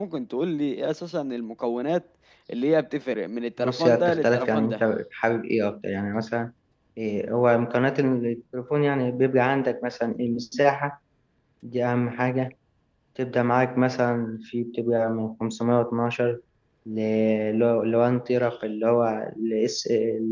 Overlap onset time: 3.6 s

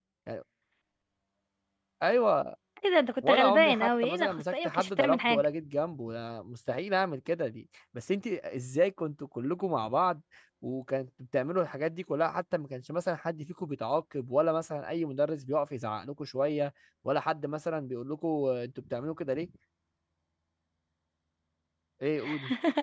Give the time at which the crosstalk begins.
3.2 s

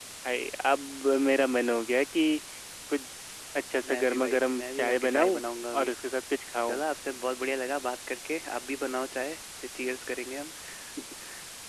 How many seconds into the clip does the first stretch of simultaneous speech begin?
3.8 s

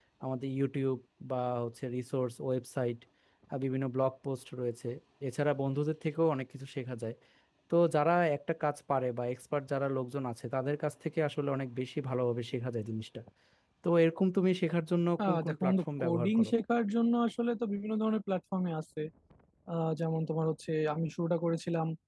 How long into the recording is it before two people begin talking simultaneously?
15.2 s

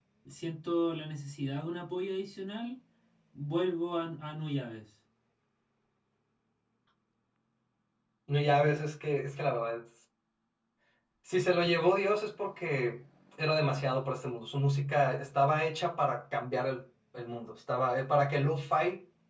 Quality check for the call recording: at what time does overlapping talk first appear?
none

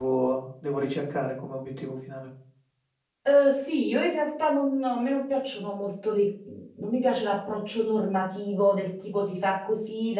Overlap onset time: none

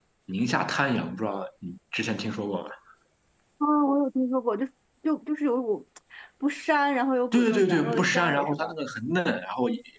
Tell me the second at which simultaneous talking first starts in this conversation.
7.3 s

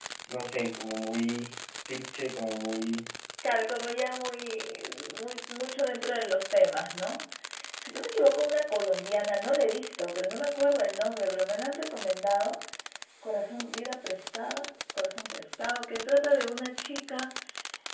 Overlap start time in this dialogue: none

